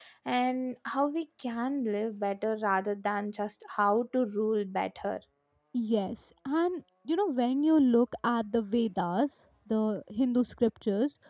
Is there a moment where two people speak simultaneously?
No

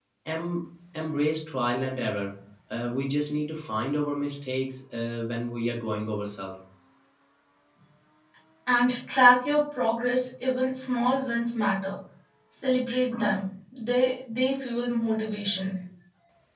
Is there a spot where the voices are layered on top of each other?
No

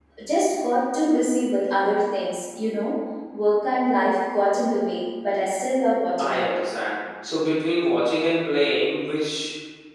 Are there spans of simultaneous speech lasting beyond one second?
No

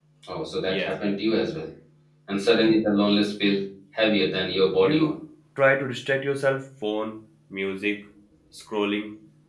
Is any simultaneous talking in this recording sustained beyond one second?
No

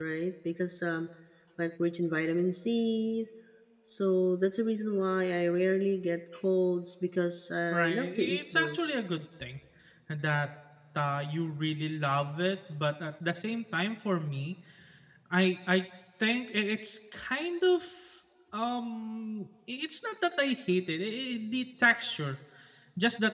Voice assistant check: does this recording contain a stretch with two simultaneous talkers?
Yes, from 7.7 s

